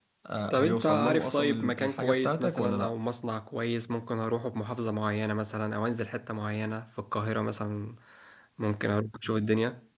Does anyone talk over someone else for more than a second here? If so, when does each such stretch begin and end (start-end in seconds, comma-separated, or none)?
0.5-2.9